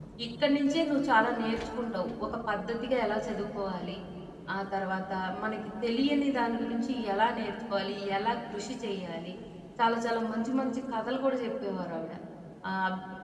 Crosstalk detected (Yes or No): No